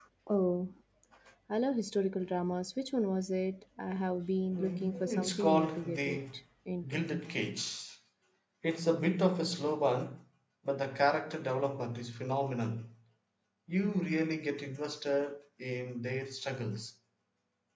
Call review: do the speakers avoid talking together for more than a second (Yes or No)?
No